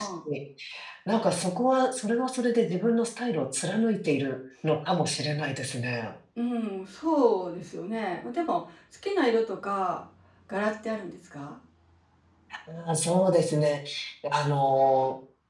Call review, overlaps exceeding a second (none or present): none